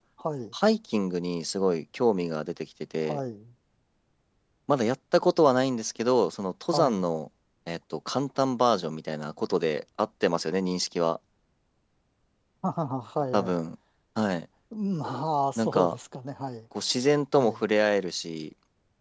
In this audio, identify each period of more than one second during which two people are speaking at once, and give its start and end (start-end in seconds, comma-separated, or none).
none